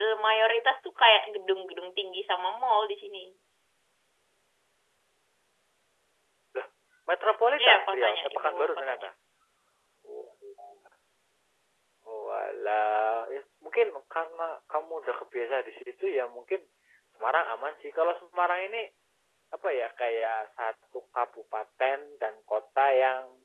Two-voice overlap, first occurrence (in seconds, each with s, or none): 7.6 s